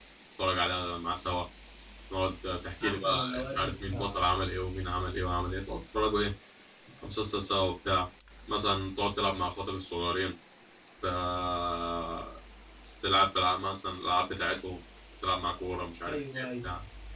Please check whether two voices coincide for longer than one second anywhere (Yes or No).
Yes